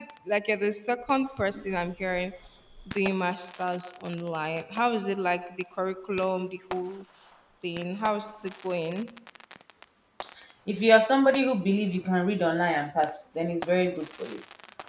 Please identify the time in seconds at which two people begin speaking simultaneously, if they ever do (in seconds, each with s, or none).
none